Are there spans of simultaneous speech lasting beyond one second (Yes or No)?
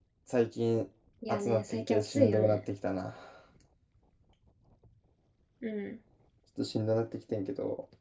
Yes